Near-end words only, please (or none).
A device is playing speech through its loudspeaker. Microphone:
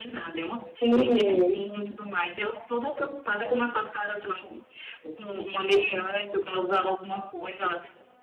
Sim.